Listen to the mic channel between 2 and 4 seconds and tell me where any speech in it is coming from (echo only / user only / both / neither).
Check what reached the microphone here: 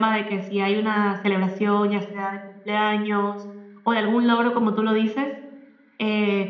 echo only